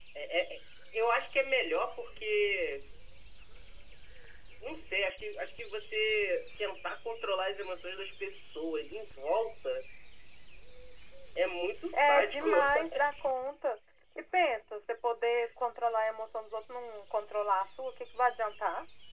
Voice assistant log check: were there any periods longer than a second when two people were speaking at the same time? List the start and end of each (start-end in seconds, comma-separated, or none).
11.9-13.2